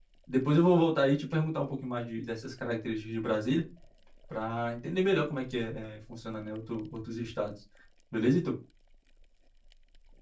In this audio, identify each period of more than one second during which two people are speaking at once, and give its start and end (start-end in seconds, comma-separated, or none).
none